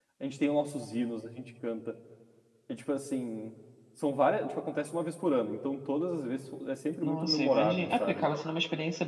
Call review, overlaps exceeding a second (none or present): present